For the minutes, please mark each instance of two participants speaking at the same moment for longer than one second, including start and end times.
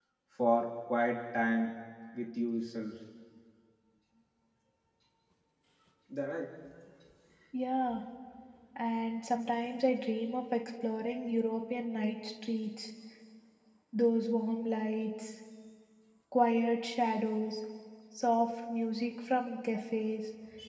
none

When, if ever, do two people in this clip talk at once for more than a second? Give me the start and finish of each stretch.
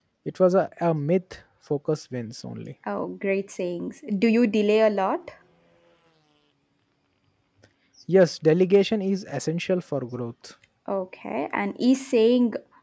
none

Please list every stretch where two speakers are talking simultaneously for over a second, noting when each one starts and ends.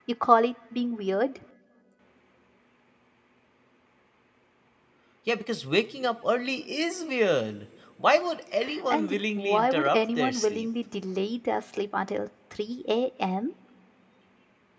8.9-10.7

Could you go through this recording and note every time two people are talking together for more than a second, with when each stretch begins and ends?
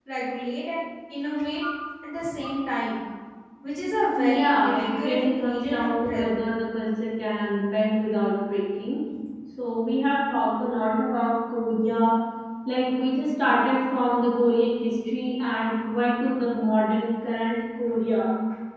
4.2-6.3

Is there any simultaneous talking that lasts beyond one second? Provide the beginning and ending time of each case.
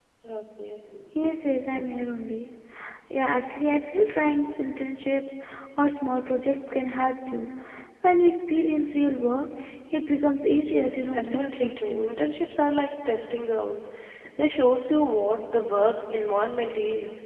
10.7-12.0

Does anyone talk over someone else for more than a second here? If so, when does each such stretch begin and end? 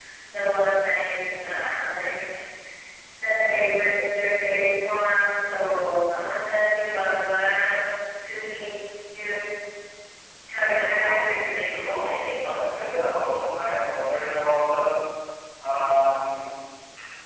10.8-12.1

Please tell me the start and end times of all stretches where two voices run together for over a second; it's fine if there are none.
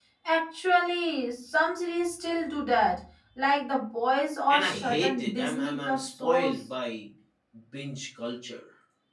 4.5-6.6

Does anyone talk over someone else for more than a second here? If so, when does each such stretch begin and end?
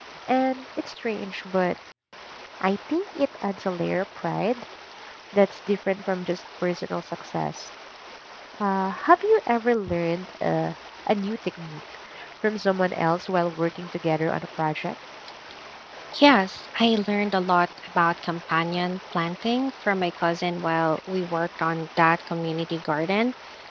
none

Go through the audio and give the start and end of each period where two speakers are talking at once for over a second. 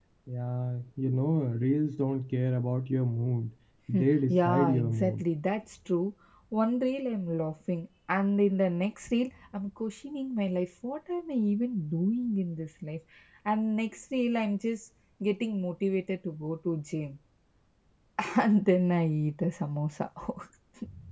3.9-5.2

